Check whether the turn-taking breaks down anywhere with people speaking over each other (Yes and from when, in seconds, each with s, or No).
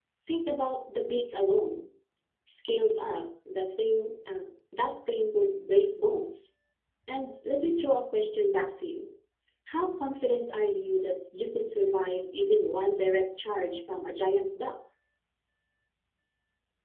No